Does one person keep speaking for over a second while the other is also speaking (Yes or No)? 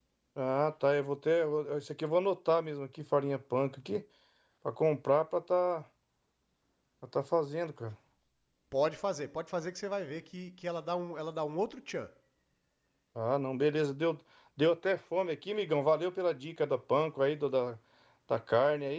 No